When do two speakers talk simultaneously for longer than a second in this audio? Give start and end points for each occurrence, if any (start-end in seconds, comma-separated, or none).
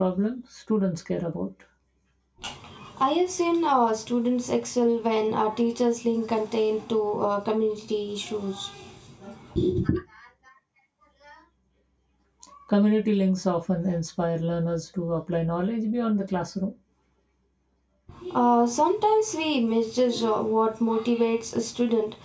none